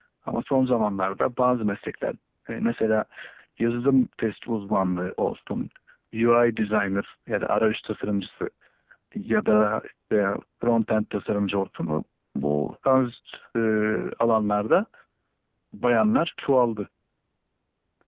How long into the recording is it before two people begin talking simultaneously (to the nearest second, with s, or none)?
none